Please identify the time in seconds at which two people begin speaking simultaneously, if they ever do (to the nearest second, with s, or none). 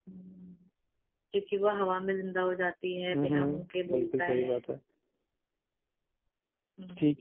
3 s